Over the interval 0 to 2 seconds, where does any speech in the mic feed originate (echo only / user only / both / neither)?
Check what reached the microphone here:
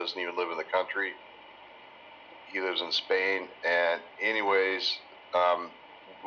echo only